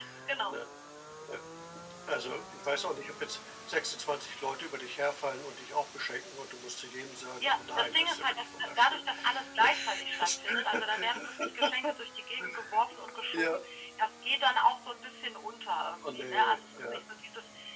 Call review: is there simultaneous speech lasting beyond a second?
Yes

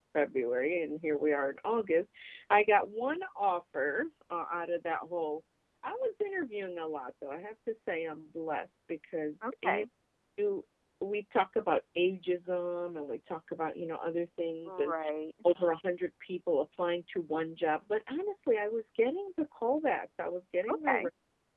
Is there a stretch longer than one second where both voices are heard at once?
No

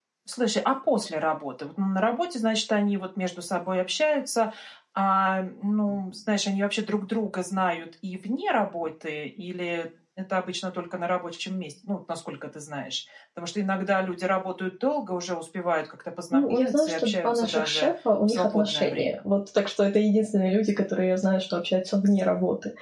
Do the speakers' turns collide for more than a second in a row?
Yes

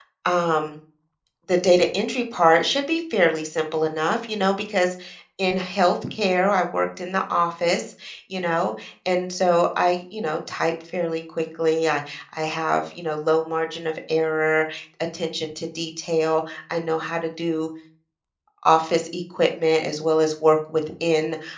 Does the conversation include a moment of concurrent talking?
No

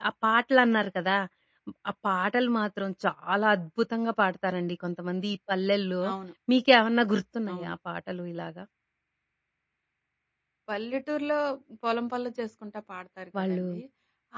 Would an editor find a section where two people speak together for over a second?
No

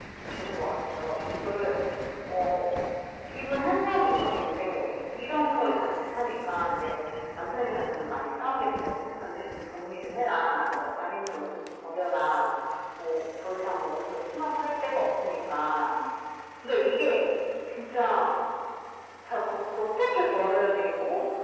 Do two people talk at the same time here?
No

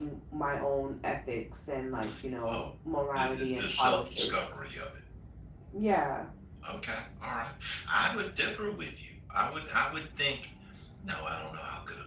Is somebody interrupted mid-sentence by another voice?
Yes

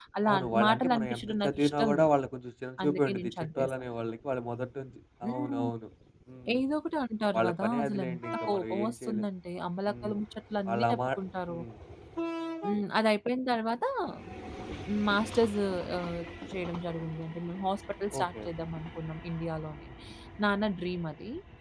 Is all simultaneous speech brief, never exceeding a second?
No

